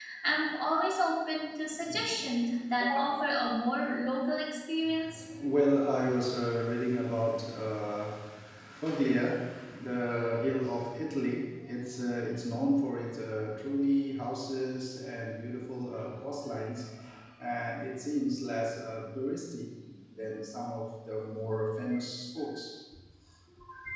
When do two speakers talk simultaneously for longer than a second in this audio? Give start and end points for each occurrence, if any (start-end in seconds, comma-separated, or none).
none